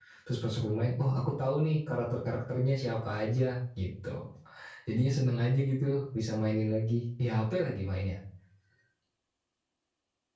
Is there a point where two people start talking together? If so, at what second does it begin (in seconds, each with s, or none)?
none